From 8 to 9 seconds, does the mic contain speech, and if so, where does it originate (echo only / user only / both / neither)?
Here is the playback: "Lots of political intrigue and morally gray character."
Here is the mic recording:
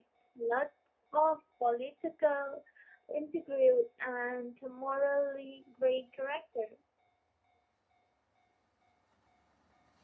neither